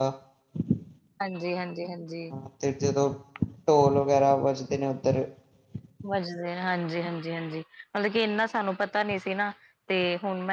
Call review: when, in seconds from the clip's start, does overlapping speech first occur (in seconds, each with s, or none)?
none